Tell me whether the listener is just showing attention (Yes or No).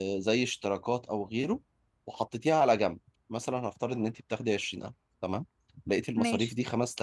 Yes